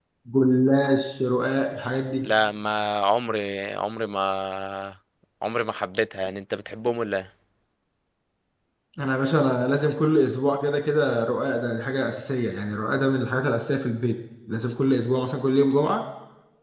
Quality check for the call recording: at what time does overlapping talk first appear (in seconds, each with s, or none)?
none